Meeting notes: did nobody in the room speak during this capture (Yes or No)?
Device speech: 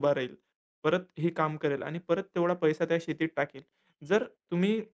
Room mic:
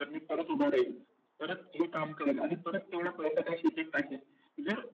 Yes